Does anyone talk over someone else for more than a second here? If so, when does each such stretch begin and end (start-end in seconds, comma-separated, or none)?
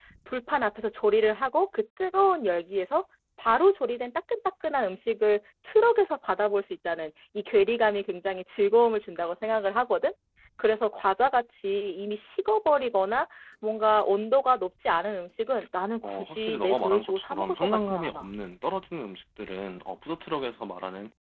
16.0-18.3